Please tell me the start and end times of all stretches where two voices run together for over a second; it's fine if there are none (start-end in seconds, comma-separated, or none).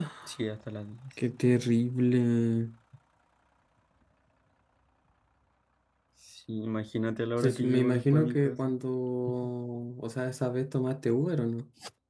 7.4-8.7